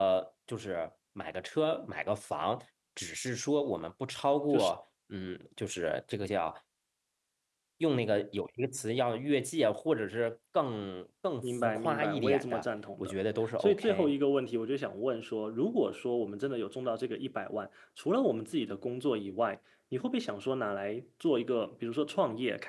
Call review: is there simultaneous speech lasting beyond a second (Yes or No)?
Yes